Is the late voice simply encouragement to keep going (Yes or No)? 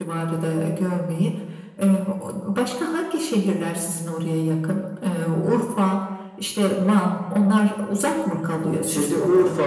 No